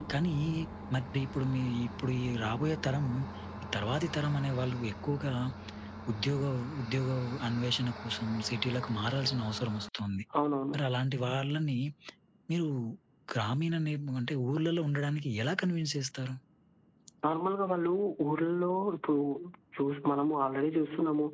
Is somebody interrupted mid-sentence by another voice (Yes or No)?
No